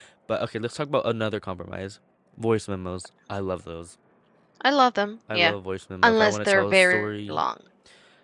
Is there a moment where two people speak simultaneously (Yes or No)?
Yes